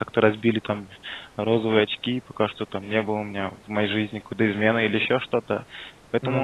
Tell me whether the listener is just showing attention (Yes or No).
Yes